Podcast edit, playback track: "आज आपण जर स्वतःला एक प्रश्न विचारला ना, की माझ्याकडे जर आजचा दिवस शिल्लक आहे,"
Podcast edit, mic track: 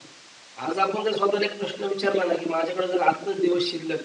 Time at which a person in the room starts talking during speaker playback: none

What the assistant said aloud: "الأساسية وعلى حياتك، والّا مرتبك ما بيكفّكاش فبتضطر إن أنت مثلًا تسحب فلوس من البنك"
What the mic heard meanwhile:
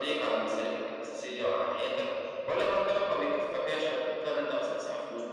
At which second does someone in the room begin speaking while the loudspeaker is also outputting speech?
none

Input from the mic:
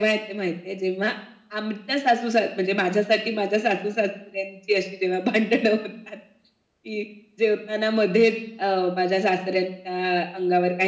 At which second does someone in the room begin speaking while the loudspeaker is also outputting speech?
none

